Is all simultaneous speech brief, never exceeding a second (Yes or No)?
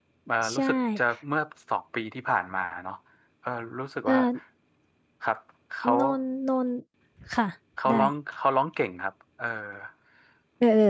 Yes